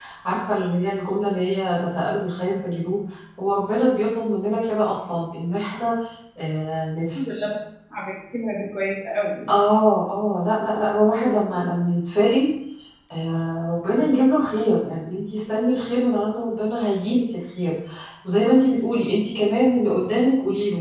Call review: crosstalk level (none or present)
none